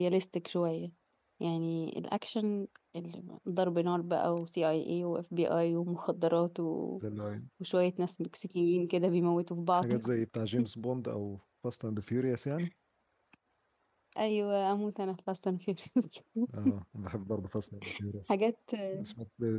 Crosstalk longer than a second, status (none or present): none